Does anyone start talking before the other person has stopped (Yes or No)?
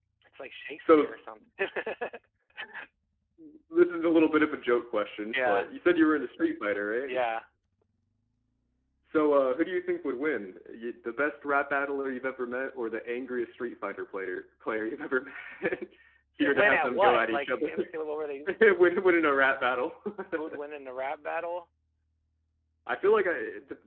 Yes